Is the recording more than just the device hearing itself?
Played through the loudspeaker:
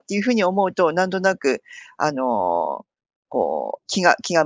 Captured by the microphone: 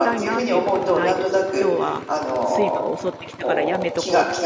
Yes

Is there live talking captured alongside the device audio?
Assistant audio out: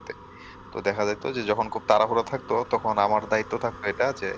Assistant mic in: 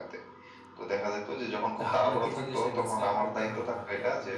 Yes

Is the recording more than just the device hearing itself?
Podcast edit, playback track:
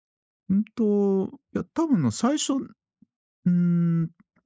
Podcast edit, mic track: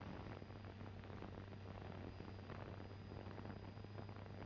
No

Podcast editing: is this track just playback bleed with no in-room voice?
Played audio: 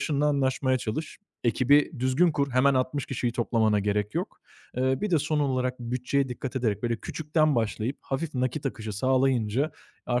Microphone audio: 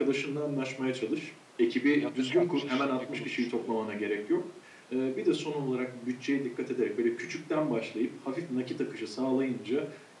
No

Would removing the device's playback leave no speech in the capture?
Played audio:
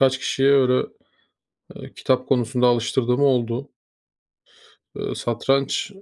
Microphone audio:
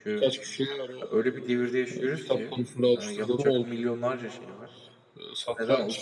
No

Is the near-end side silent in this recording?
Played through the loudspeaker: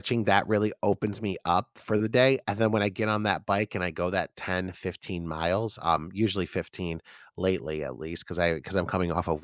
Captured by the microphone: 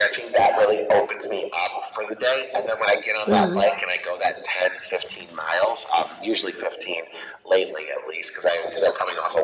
No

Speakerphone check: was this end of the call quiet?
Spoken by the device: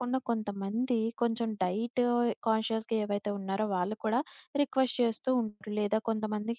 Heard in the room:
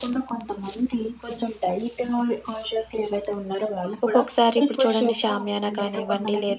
No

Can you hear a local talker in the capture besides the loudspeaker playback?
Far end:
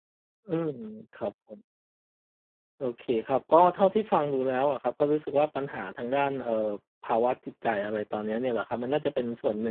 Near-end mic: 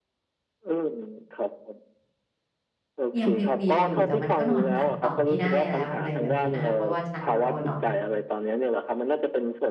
Yes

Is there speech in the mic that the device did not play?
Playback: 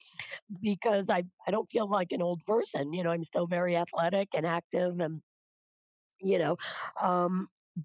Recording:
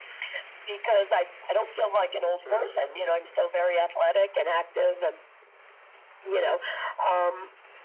Yes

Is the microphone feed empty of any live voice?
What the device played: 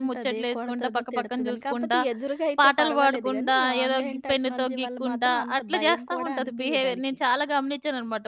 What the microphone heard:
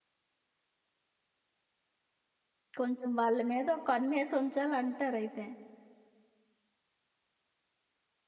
No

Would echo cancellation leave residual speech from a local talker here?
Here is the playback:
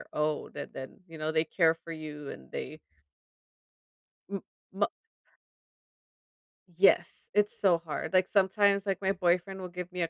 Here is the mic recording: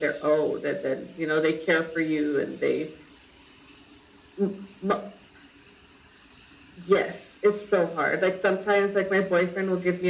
No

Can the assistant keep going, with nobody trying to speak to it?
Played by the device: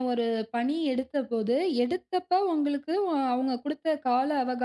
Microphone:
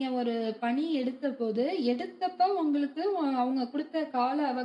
Yes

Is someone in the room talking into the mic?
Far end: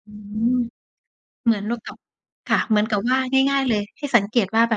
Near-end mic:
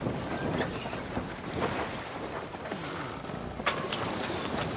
No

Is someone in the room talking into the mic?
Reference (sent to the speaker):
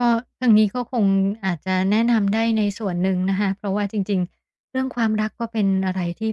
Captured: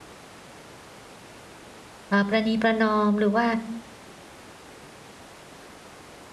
Yes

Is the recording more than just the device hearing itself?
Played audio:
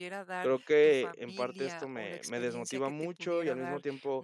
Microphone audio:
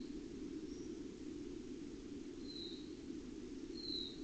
No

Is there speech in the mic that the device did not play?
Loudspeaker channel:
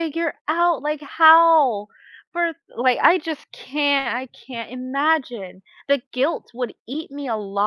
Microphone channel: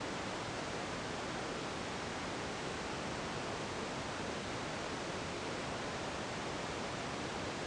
No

